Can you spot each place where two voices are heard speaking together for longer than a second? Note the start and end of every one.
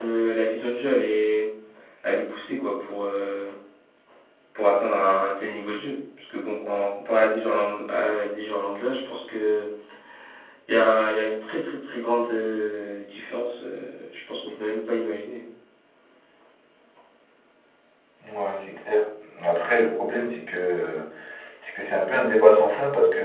none

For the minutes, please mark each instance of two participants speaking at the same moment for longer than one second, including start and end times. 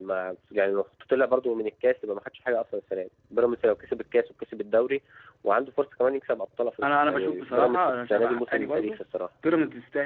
6.8-9.0

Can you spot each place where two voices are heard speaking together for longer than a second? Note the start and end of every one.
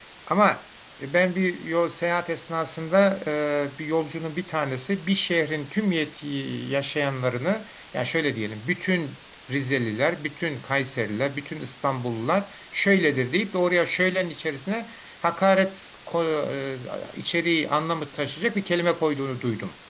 none

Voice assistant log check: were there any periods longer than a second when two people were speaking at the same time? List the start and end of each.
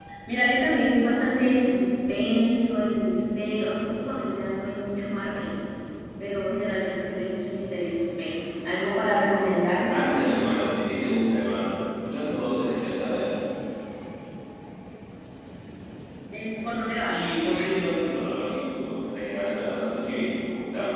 none

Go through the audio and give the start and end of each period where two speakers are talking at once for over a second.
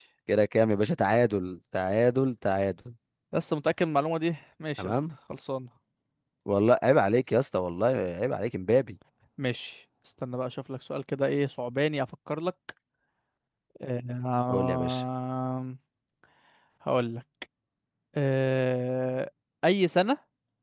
none

